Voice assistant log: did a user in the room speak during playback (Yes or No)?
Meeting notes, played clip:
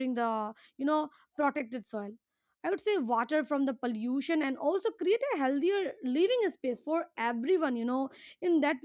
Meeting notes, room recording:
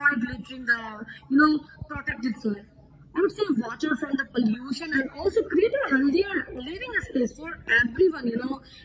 No